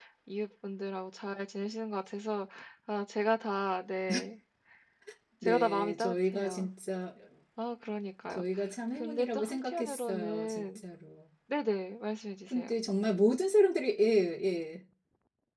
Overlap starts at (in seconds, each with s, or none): 5.4 s